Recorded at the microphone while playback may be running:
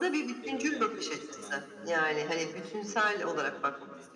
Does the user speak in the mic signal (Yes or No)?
Yes